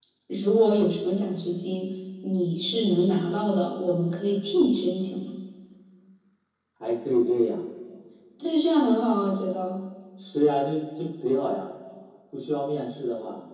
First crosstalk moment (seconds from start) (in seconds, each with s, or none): none